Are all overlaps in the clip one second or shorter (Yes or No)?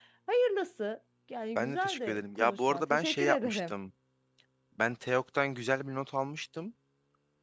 No